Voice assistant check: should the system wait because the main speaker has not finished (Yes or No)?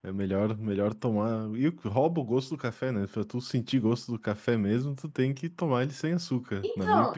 No